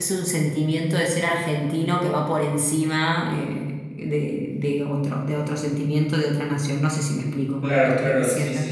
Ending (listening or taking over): taking over